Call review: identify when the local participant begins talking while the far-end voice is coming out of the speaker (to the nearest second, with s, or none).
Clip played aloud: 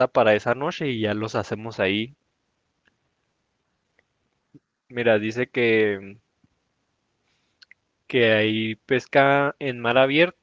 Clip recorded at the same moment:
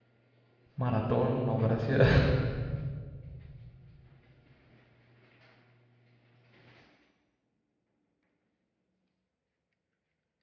1 s